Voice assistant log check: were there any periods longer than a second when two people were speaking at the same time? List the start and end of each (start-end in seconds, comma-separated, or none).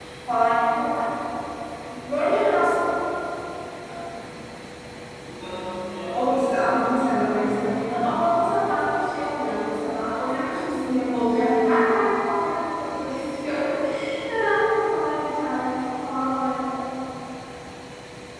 6.1-8.1